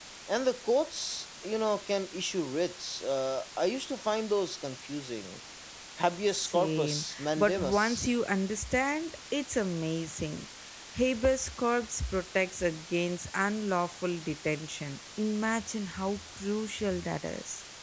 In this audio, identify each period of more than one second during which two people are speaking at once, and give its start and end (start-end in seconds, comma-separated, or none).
6.3-8.1